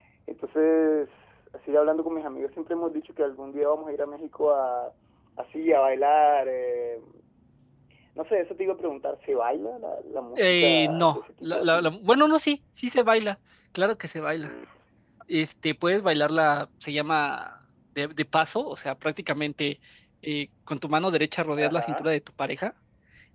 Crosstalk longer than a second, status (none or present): present